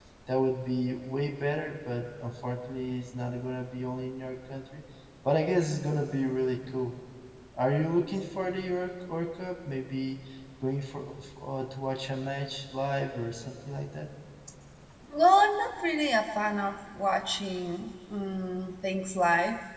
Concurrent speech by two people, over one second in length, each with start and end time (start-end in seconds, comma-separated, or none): none